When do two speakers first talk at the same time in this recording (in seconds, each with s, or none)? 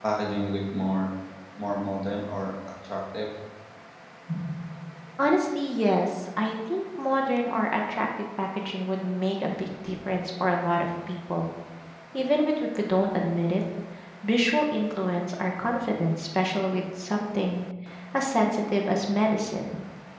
none